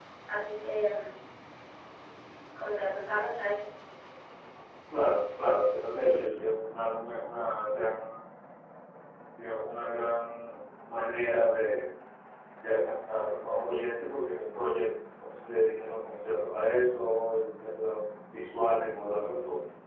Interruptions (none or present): none